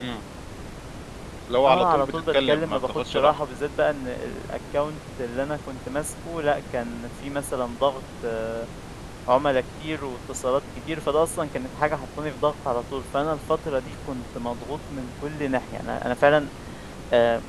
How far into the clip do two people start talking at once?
1.7 s

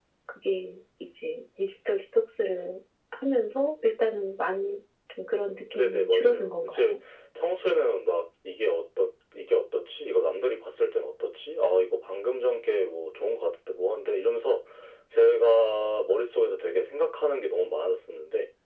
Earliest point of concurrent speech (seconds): 5.7 s

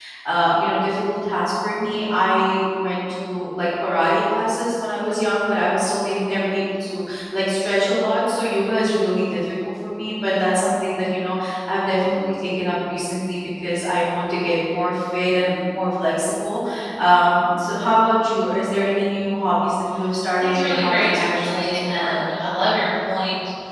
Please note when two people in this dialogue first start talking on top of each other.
20.4 s

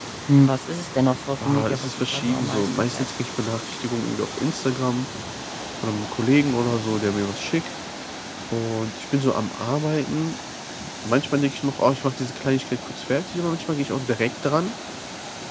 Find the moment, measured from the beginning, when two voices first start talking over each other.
1.4 s

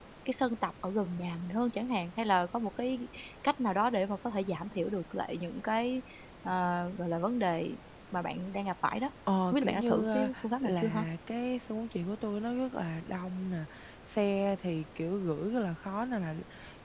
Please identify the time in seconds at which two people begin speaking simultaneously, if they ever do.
9.5 s

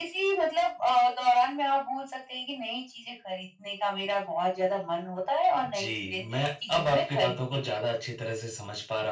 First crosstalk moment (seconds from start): 5.6 s

